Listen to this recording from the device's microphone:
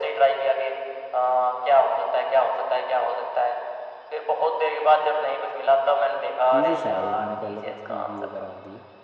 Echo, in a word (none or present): present